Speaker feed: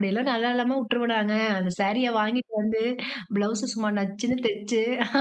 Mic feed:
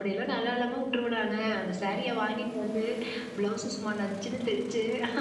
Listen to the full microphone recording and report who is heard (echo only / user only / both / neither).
echo only